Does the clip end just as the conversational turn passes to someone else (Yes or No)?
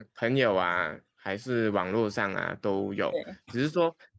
No